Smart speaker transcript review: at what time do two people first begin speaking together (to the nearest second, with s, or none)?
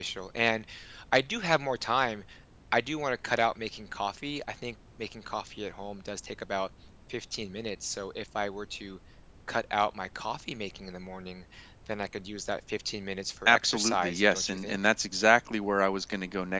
13 s